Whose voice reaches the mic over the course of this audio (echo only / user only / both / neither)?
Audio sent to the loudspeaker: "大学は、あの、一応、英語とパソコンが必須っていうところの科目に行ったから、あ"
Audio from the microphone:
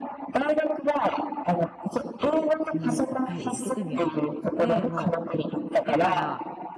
both